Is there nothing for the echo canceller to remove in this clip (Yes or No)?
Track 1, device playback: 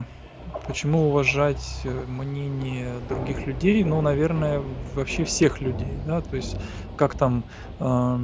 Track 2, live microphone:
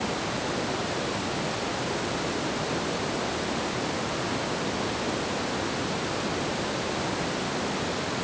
Yes